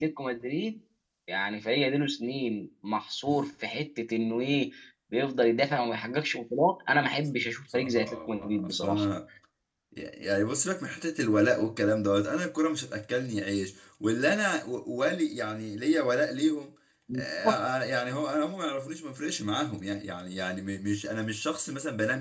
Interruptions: present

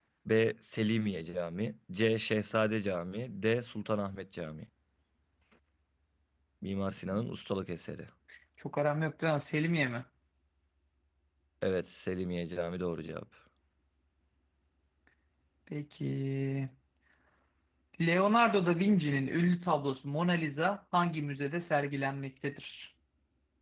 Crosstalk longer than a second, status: none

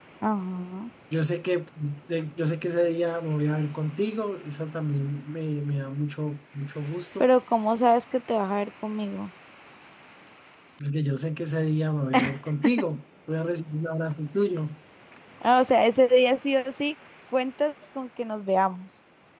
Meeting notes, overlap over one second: none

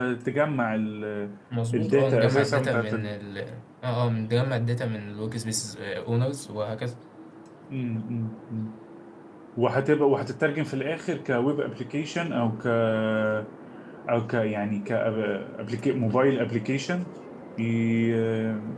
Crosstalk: present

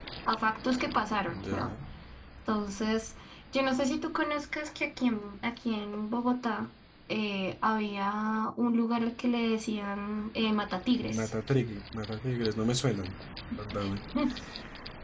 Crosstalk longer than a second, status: none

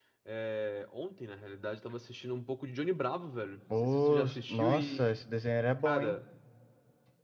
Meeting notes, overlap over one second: present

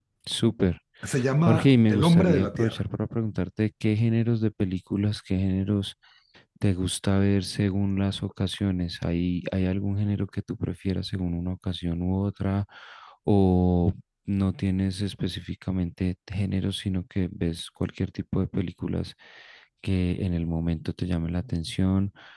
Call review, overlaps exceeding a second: present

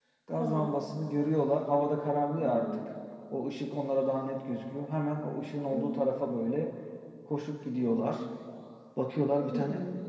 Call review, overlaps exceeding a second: none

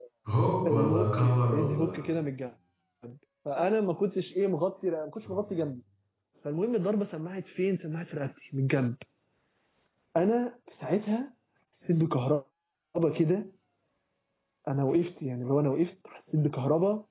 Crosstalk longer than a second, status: present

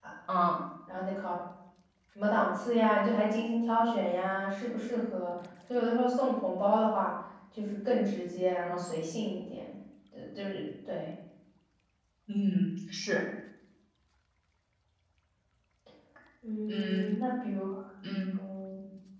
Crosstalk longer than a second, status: none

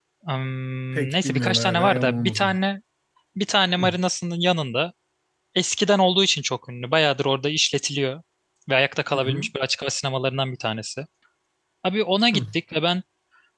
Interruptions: present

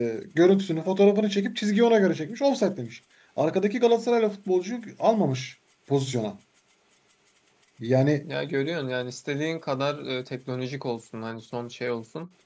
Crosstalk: none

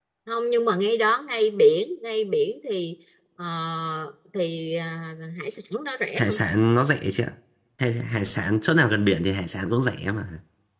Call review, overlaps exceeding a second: none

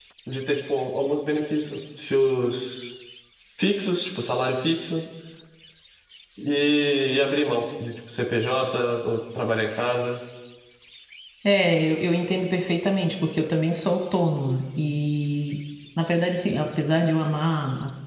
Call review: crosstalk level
none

